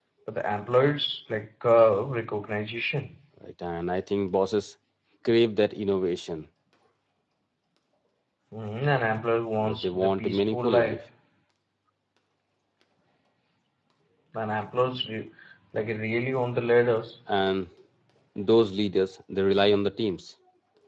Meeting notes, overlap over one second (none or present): present